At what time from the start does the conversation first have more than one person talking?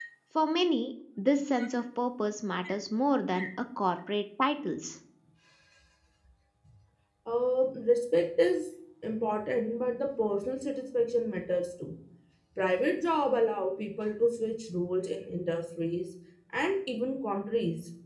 none

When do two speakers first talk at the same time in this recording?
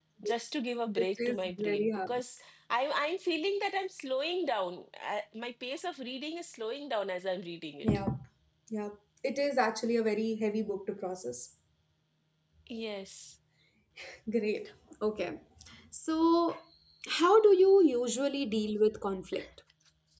1.0 s

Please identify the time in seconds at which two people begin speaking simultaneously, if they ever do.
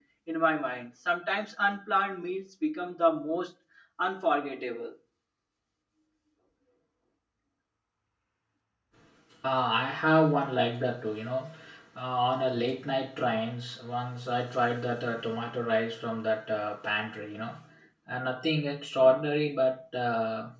none

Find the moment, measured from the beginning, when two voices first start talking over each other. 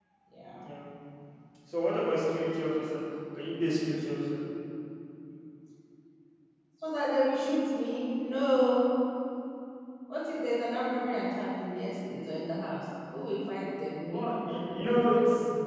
14.1 s

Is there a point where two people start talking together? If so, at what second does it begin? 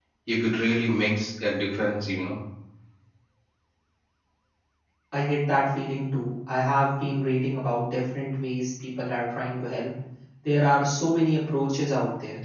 none

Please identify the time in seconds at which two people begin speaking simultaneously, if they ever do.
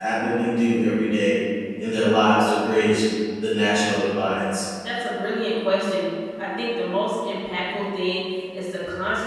none

